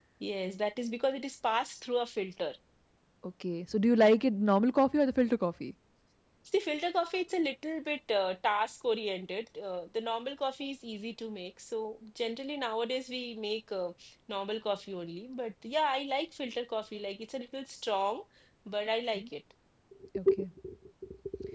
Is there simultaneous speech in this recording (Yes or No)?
No